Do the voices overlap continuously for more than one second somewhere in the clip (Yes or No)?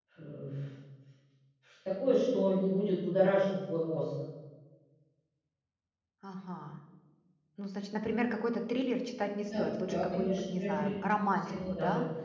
Yes